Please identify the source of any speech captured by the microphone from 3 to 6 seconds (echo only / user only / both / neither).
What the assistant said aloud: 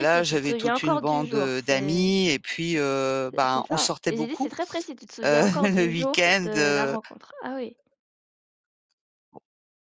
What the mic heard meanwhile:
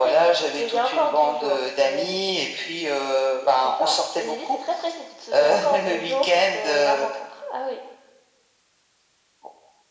echo only